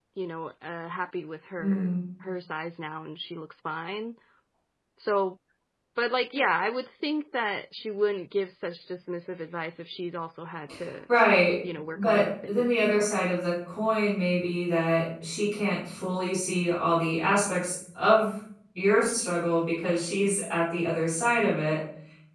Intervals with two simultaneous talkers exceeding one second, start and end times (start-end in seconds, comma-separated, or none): 12.0-13.2